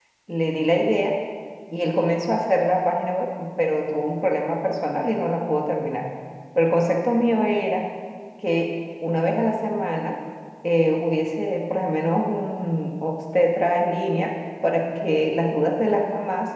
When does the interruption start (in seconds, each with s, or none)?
none